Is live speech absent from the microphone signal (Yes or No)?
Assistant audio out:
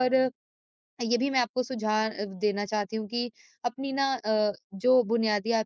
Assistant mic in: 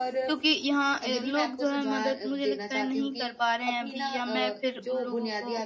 No